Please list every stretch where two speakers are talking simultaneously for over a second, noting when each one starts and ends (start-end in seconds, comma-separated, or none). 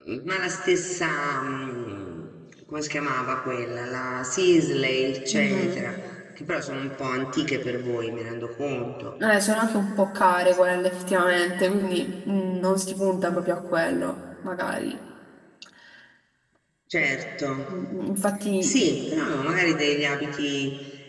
none